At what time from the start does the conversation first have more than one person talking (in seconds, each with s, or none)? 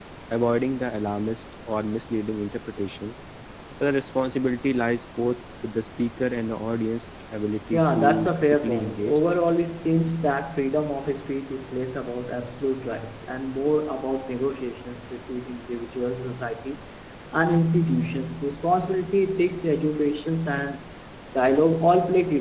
7.7 s